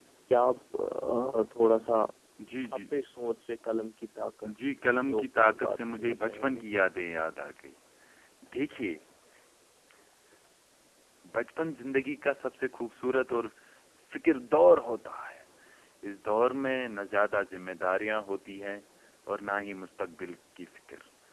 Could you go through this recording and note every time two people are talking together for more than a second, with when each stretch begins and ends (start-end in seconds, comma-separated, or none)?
5.1-6.6